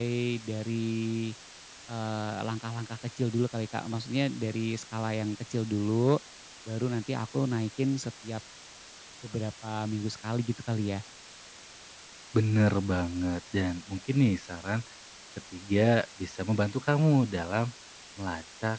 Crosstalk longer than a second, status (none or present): none